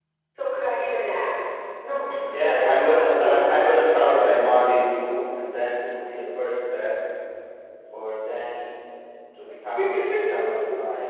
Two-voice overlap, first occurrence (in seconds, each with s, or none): 2.2 s